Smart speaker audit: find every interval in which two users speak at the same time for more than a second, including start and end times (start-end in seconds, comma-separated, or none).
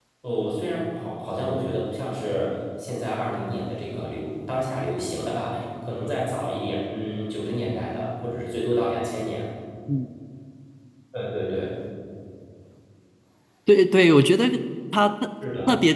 none